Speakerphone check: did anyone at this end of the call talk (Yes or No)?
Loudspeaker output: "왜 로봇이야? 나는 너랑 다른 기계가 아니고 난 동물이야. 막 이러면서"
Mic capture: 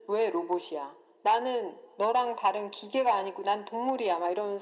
No